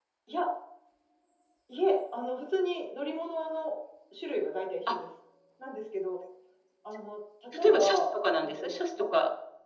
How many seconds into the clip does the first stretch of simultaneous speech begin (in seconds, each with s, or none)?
7.5 s